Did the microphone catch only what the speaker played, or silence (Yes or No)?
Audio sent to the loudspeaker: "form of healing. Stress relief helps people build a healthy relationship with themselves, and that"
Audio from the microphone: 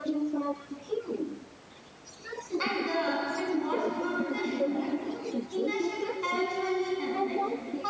No